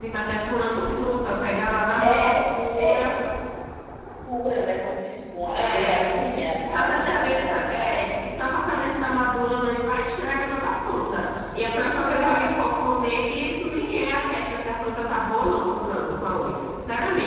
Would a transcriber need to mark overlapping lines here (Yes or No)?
Yes